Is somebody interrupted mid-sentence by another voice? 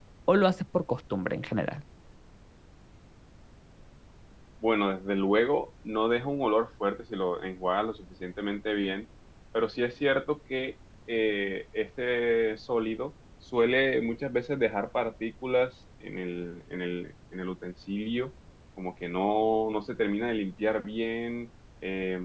No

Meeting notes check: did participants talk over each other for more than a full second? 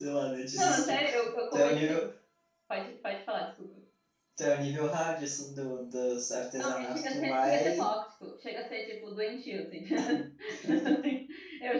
Yes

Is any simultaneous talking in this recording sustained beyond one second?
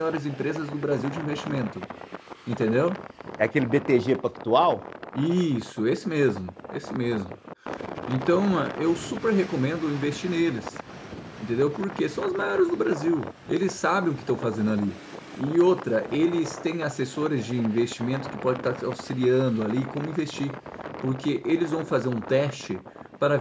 No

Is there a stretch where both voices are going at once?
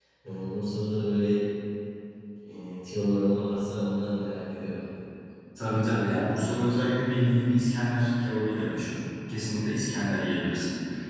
No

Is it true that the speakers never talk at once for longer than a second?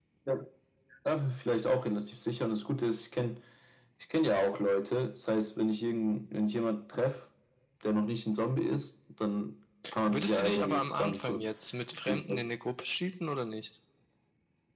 No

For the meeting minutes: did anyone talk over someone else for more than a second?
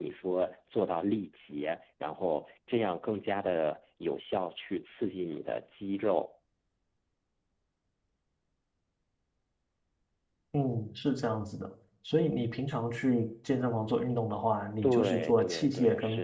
Yes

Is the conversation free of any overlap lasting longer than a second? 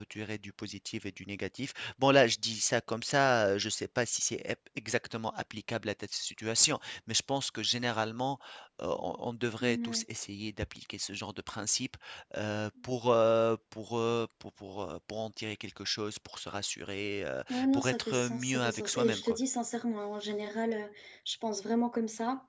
No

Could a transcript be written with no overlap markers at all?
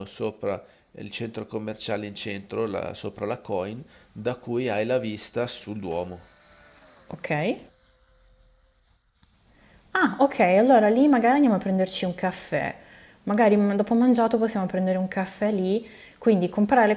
Yes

